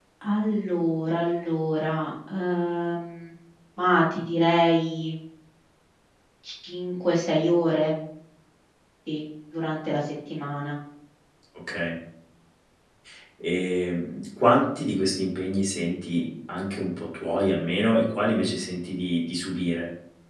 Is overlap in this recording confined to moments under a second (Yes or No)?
Yes